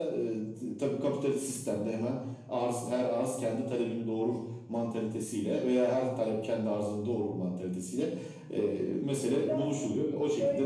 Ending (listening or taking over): taking over